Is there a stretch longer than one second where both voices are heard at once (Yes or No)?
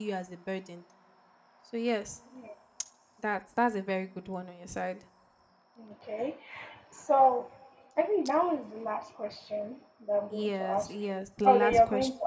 Yes